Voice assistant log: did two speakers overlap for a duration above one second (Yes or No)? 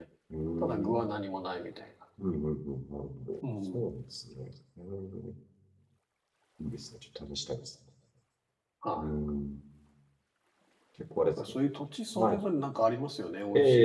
No